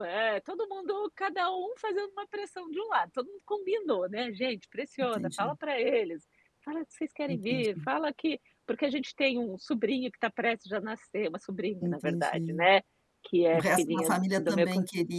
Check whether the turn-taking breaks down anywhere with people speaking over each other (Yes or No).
Yes